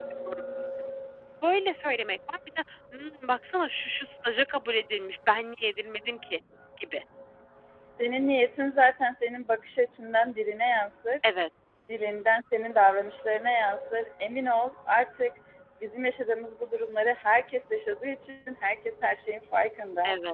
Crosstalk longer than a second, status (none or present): none